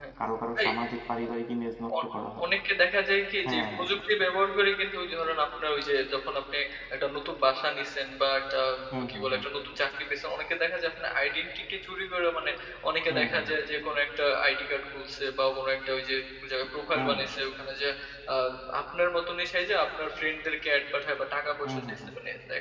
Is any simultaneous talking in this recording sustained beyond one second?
No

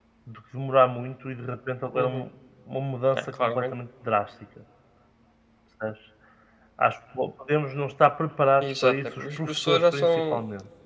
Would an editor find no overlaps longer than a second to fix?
No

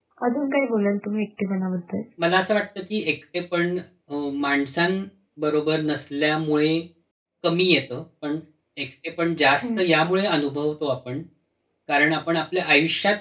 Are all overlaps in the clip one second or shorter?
Yes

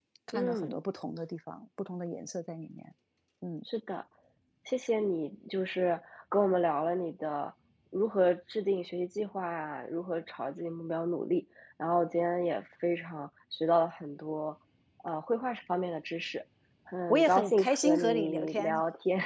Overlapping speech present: Yes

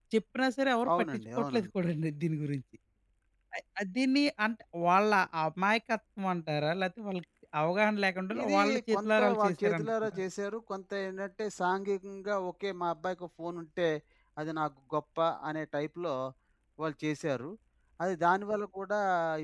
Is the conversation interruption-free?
No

